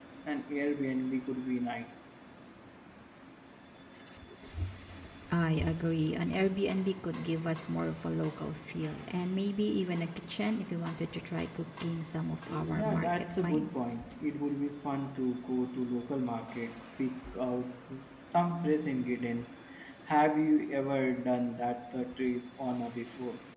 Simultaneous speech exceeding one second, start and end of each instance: 12.8-14.1

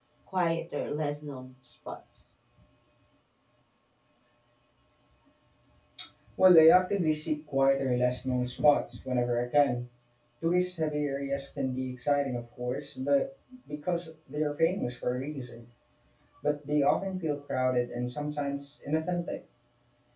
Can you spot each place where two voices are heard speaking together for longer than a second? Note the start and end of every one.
none

